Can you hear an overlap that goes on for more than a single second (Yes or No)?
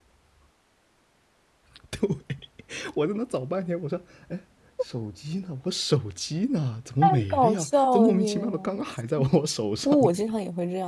Yes